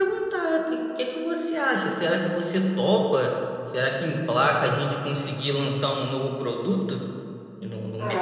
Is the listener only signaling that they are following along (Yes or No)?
No